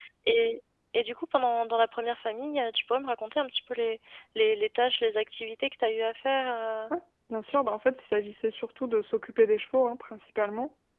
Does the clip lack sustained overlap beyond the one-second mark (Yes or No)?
Yes